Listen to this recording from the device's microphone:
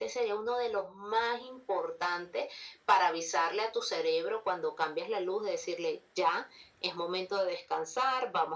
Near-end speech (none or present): none